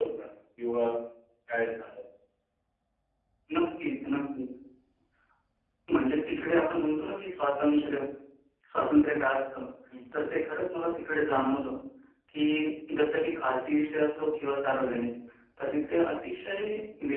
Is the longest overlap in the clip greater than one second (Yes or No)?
No